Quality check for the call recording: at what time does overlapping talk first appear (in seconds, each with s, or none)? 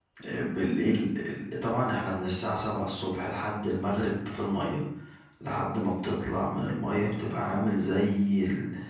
none